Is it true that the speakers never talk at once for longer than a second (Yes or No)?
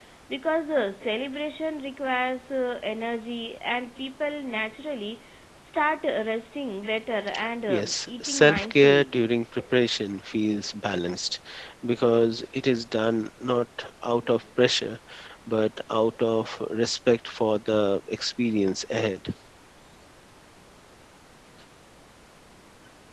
No